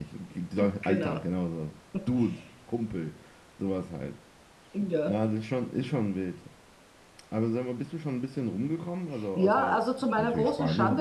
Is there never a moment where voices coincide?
No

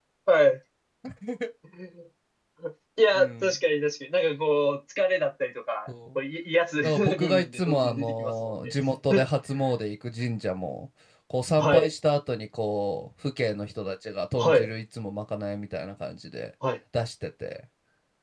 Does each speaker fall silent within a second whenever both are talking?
No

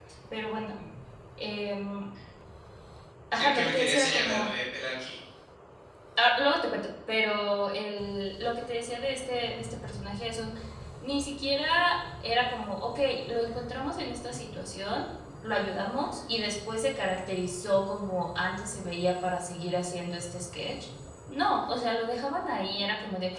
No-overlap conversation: No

